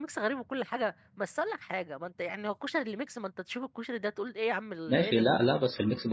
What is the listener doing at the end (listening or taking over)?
taking over